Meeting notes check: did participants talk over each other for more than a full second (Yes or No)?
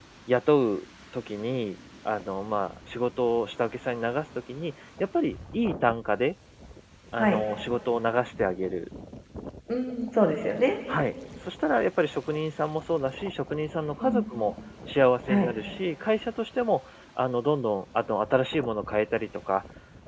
No